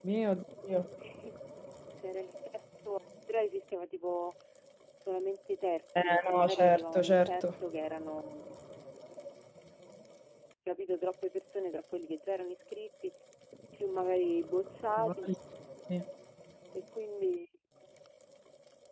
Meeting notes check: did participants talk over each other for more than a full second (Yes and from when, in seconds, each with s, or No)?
Yes, from 6.0 s